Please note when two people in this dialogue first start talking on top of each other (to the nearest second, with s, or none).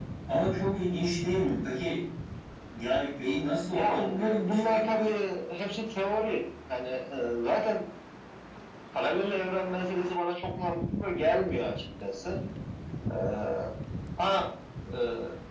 4 s